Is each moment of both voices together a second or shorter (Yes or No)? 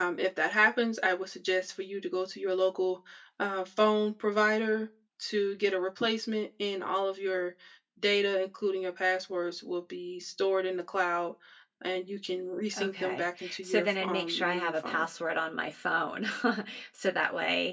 No